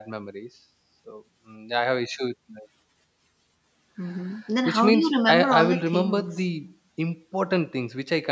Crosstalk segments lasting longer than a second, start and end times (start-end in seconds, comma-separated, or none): 4.7-6.3